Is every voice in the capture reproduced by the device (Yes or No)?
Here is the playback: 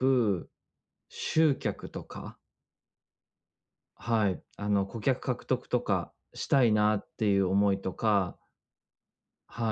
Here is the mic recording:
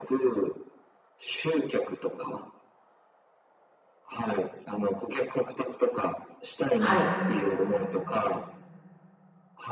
No